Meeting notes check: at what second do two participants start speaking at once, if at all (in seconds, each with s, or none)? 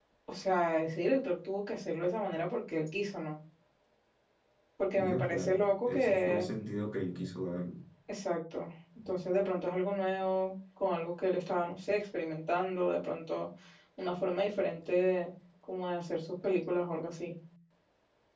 5.0 s